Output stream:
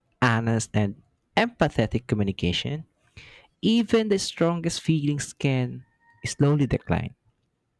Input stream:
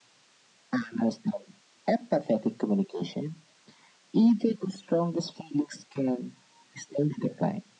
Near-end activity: none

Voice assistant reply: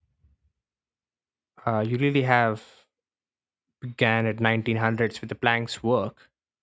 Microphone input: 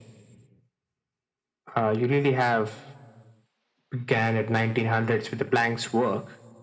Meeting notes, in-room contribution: none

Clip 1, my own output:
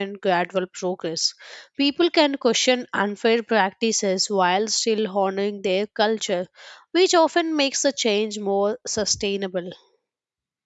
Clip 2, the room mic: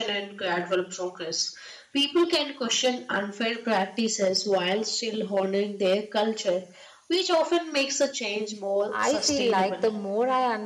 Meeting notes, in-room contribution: present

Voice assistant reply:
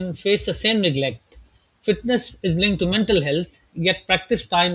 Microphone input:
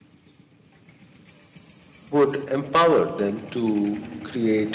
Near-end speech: present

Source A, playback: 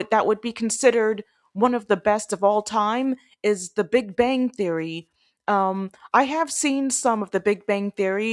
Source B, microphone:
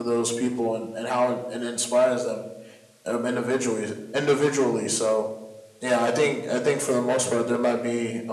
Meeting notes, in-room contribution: present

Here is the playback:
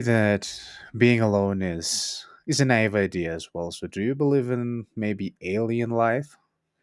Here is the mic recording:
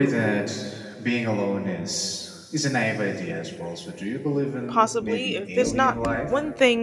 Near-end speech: present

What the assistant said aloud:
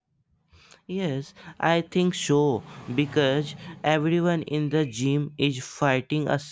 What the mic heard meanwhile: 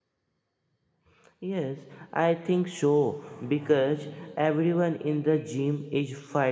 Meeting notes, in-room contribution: none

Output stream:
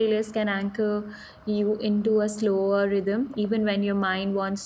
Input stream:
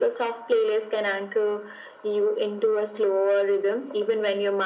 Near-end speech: none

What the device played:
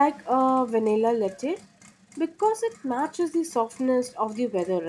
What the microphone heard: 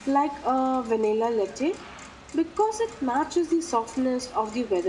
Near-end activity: none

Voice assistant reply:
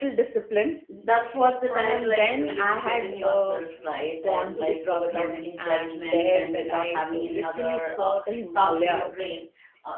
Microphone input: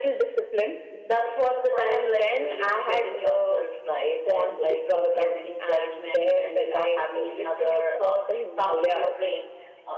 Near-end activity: none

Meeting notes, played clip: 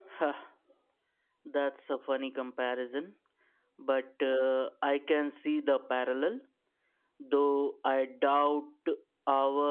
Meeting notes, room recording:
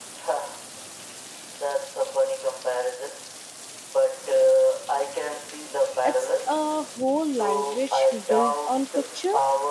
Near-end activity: present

